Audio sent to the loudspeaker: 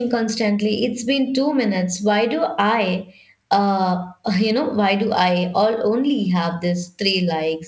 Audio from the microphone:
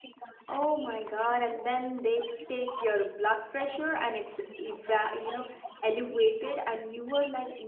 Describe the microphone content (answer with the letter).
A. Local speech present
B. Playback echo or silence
A